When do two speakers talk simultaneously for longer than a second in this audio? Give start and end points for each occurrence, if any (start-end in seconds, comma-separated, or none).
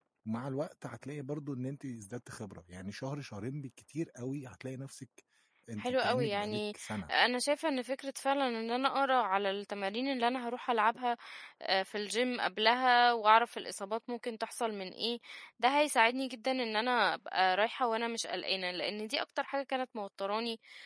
5.8-7.1